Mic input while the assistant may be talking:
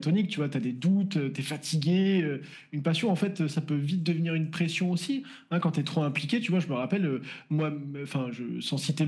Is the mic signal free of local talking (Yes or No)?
Yes